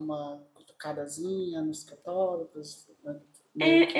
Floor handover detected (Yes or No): Yes